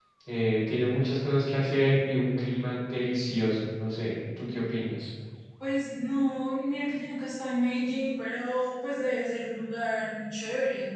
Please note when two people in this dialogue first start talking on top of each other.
none

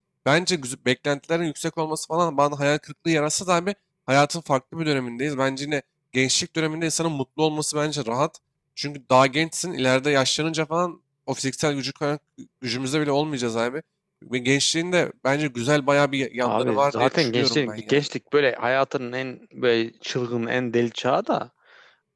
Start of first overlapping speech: 16.4 s

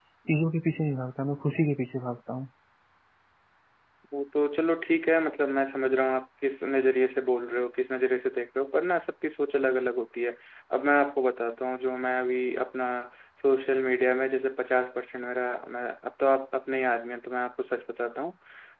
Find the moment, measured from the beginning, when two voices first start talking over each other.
none

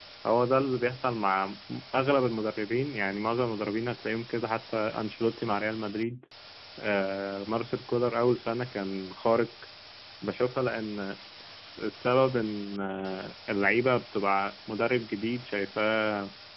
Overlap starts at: none

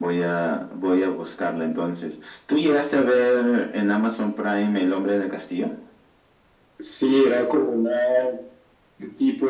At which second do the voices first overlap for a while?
none

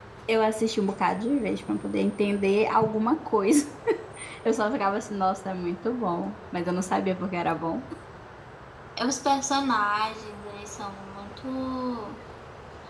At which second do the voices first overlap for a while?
none

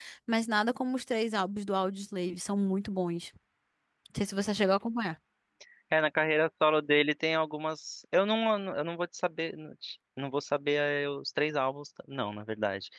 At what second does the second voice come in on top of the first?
none

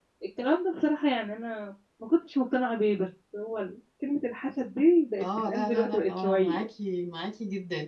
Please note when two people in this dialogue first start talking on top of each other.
5.2 s

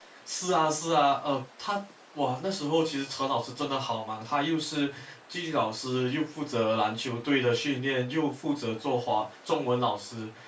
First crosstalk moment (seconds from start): none

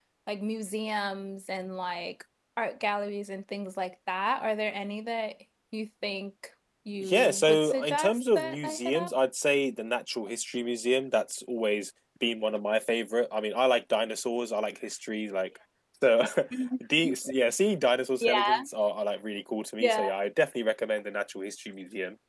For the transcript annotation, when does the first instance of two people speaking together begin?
7.0 s

